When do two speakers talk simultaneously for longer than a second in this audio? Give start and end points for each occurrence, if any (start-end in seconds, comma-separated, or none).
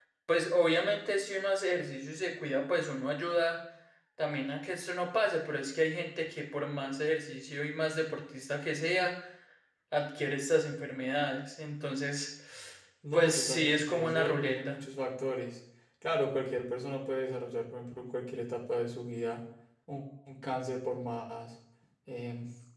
13.1-14.8